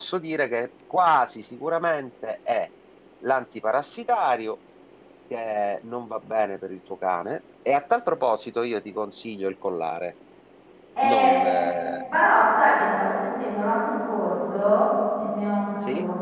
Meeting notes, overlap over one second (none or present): none